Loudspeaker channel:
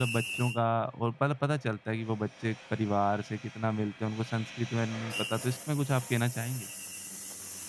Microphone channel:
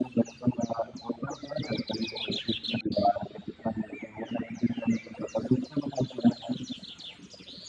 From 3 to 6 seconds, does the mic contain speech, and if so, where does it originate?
echo only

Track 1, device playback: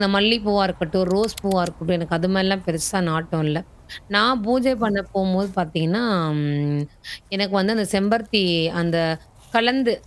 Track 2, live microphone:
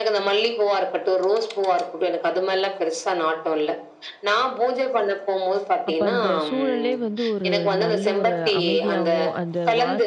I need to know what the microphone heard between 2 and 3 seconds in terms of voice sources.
echo only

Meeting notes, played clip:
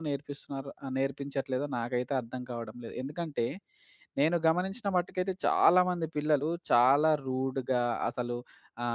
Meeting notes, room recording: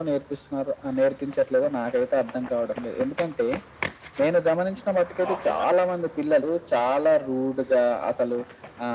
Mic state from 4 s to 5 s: echo only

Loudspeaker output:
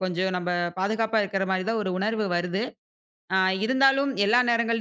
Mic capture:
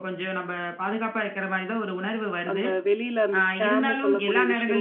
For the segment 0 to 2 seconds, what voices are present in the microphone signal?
echo only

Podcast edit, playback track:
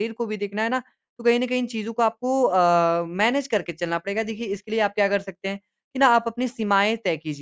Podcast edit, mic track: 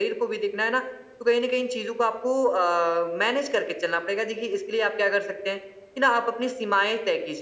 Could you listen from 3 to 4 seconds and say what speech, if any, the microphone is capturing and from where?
echo only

